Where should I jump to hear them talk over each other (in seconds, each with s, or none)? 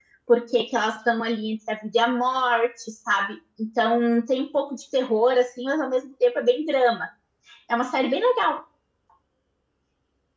none